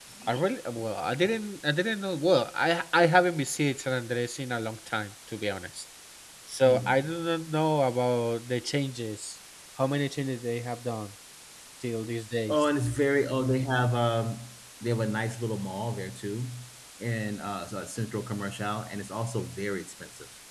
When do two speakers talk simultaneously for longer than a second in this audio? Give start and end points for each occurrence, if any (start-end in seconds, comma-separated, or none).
none